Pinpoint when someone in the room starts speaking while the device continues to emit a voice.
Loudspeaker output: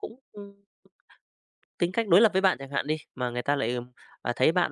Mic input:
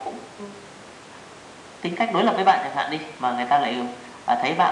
none

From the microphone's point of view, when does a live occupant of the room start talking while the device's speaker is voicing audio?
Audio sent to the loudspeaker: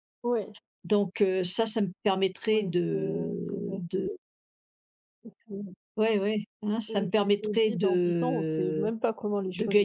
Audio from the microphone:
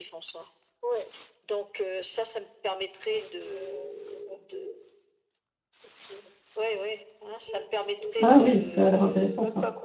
8 s

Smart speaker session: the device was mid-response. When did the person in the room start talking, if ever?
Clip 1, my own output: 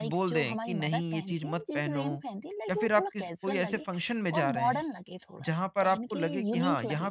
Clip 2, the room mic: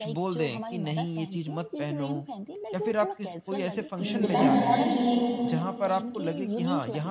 4 s

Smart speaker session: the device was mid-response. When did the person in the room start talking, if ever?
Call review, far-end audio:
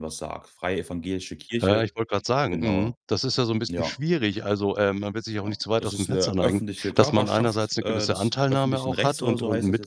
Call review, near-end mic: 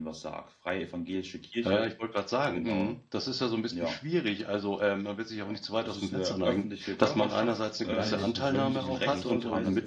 8 s

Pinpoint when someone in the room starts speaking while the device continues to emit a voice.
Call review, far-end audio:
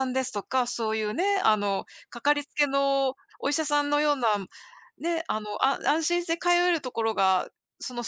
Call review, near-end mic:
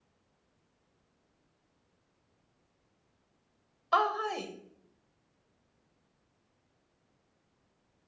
4 s

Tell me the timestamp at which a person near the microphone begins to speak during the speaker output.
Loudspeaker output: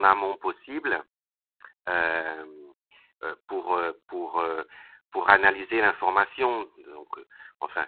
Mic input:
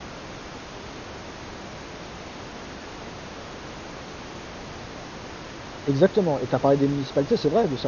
6 s

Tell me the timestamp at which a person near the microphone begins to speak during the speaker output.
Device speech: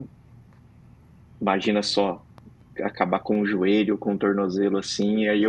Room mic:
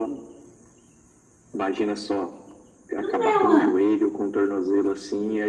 3 s

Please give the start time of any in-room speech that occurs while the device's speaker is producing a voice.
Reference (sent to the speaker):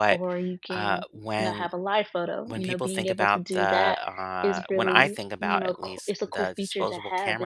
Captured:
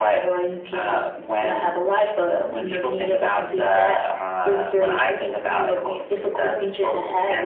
none

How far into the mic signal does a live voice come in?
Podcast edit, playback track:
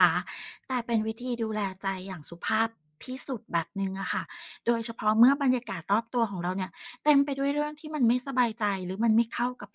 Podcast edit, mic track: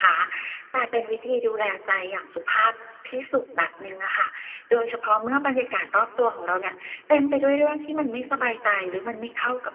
none

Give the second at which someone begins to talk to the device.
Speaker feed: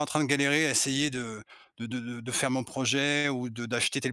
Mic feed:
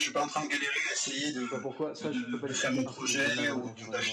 1 s

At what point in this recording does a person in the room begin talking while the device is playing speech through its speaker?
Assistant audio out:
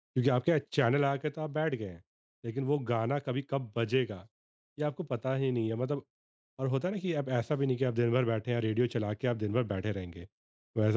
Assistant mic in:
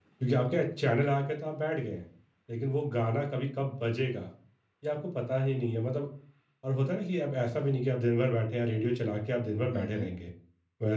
10 s

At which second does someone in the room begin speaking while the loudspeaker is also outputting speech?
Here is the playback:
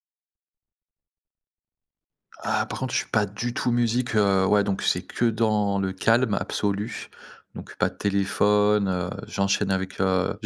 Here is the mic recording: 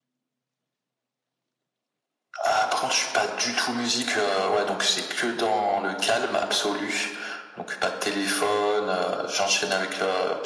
none

